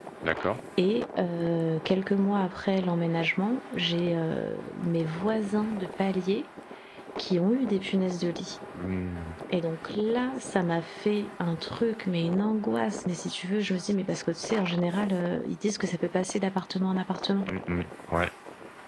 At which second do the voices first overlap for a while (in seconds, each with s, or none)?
none